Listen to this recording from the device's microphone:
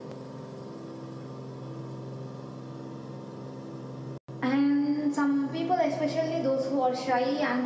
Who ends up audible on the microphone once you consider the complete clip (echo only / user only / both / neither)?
user only